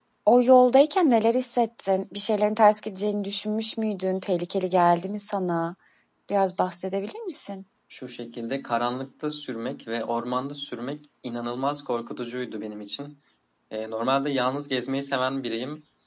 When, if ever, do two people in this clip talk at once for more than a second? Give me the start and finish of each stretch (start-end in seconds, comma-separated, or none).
none